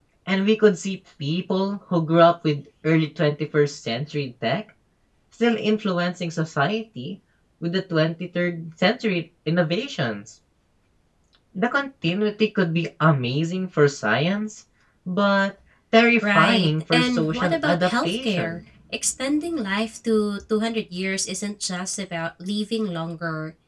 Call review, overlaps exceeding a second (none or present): present